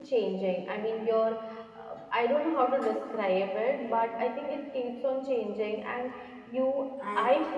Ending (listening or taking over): listening